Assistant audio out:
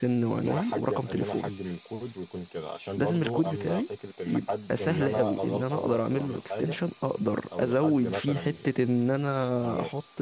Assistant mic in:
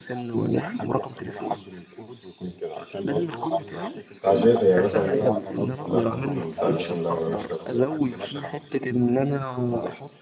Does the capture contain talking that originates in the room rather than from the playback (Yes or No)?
Yes